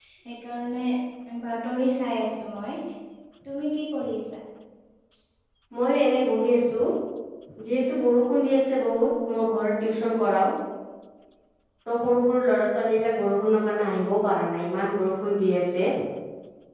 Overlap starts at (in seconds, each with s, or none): none